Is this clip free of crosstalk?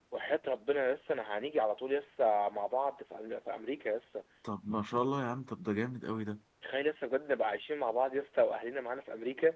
Yes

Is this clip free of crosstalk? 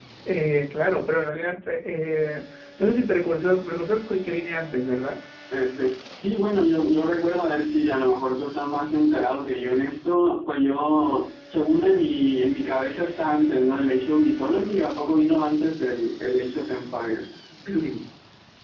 Yes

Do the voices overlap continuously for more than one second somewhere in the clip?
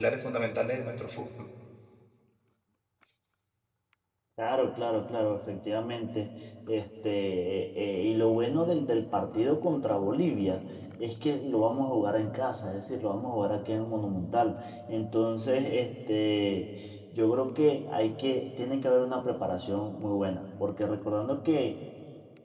No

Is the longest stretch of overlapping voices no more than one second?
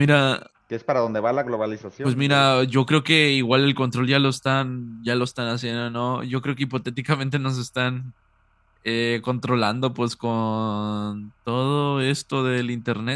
Yes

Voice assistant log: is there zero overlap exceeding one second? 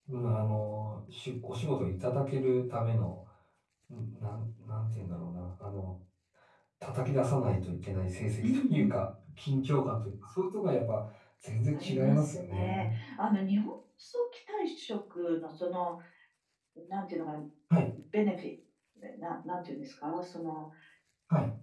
No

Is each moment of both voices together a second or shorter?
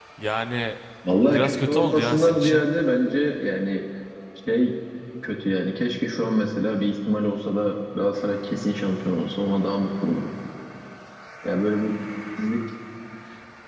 No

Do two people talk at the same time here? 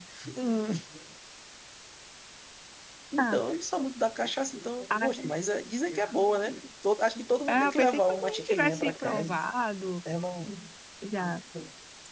Yes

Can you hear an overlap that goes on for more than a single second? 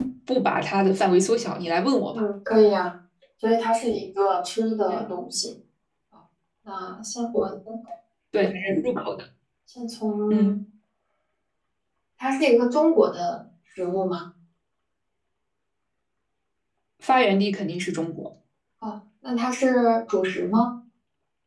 No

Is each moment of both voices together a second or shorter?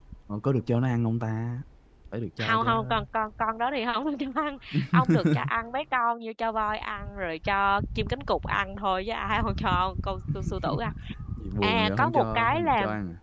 No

